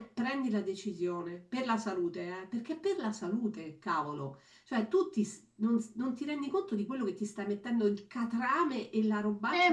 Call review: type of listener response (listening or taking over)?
taking over